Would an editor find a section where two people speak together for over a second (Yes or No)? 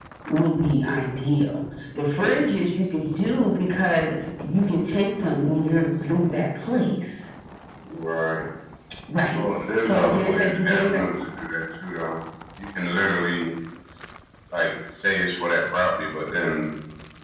Yes